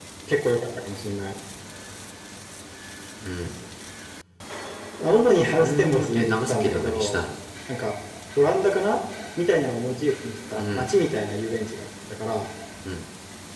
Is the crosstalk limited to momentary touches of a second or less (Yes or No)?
No